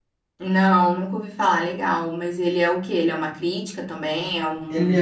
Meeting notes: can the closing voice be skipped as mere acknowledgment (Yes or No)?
No